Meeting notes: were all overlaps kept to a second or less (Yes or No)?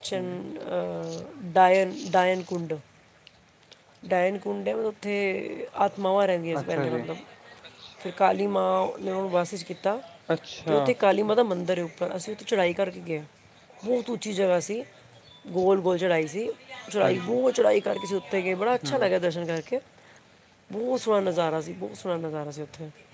Yes